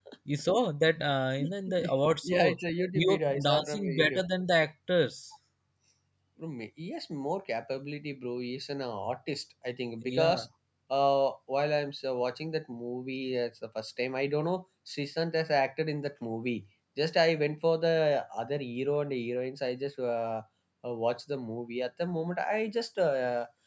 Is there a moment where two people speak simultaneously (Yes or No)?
Yes